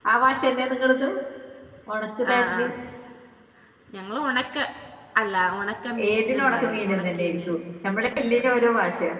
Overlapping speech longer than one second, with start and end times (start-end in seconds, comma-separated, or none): 6.1-7.5